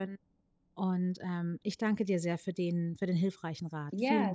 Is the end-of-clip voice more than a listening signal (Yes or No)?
Yes